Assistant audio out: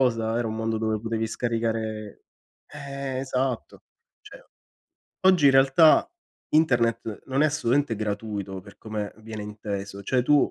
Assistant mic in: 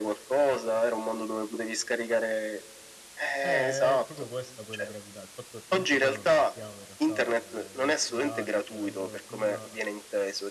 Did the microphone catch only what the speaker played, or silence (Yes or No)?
No